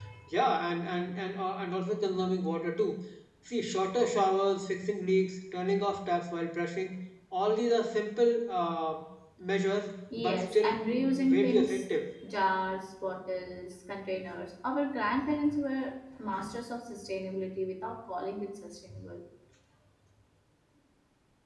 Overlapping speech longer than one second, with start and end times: 10.2-11.8

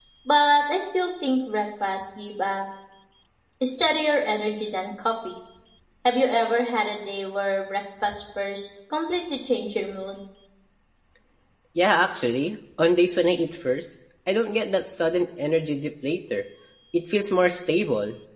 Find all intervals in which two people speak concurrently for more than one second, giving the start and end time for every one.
none

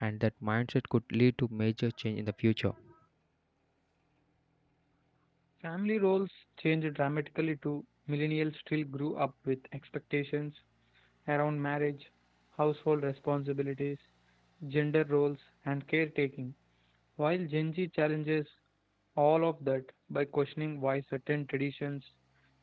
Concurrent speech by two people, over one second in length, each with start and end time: none

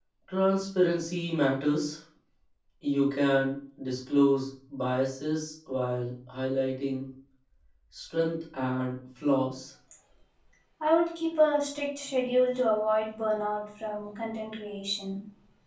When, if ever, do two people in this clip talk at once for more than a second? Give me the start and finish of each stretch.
none

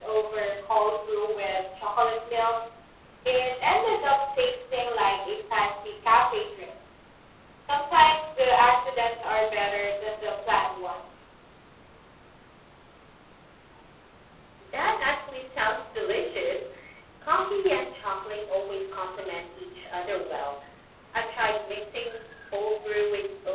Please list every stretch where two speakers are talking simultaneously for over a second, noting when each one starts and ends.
none

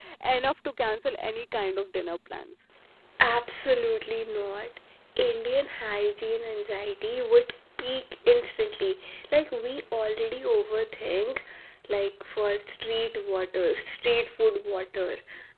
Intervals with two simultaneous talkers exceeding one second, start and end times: none

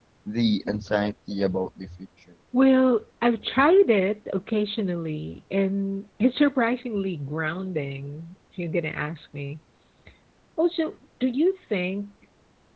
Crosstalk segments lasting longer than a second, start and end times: none

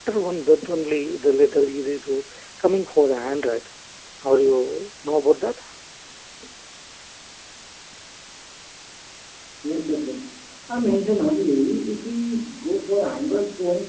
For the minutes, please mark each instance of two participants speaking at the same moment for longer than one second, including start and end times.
none

